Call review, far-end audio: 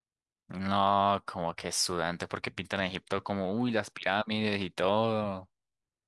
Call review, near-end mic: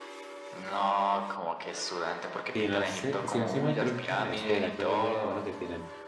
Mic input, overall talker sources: both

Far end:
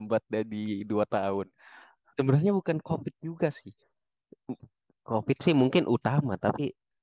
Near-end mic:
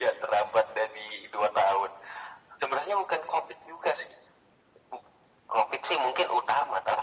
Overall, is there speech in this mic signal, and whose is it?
echo only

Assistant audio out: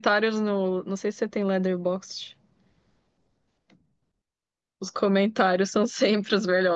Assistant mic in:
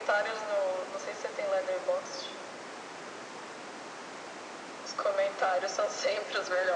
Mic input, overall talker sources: echo only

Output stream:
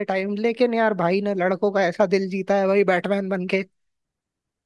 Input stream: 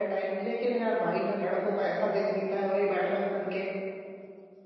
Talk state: echo only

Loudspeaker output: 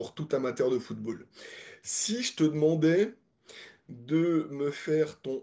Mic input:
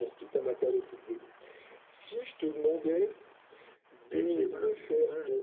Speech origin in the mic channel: both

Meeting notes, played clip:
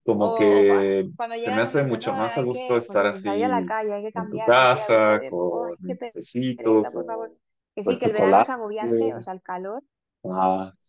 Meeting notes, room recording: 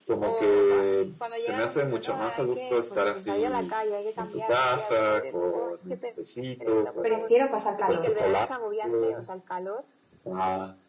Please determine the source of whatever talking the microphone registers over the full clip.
both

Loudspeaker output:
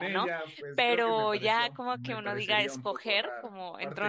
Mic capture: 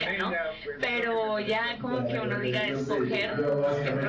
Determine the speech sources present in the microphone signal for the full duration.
both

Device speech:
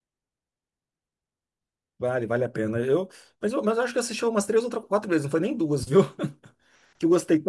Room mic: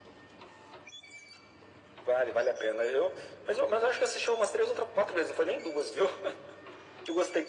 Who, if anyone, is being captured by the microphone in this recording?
echo only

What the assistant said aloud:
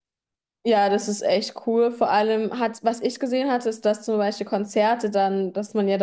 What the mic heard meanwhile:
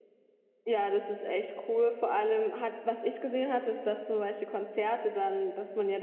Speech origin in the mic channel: echo only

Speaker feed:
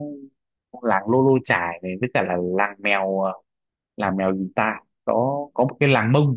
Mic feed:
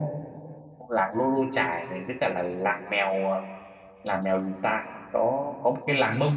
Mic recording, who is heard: echo only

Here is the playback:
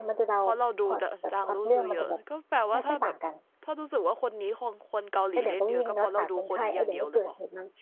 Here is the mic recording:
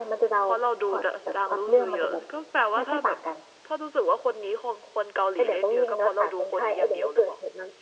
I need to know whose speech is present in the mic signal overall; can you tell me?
echo only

